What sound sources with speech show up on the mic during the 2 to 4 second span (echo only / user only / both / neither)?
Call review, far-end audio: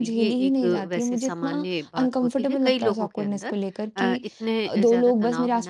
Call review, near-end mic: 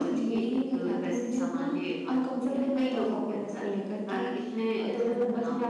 echo only